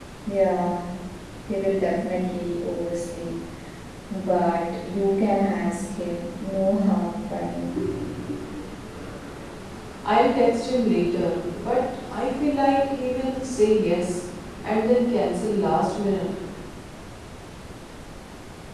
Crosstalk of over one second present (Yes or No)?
No